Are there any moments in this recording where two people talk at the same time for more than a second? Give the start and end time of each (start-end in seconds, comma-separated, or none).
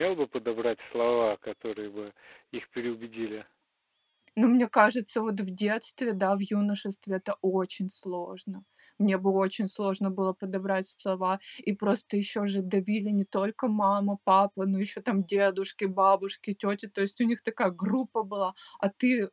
none